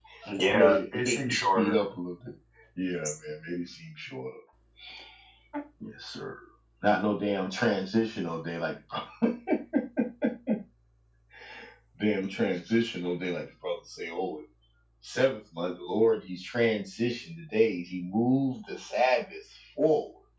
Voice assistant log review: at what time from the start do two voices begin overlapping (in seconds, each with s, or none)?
0.5 s